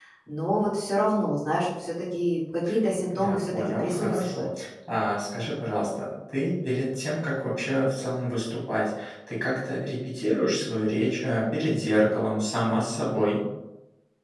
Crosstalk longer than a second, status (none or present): present